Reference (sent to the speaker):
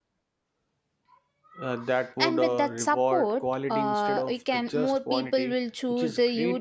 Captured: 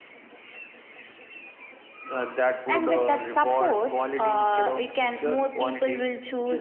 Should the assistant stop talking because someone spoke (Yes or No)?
No